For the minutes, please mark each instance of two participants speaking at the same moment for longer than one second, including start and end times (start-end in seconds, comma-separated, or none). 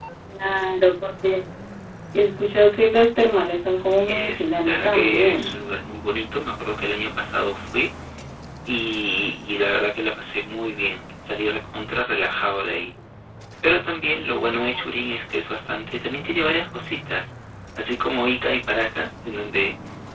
3.9-5.5